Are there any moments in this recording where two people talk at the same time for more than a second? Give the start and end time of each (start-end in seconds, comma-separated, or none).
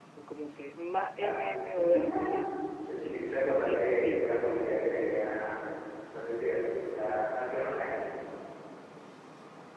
3.0-4.3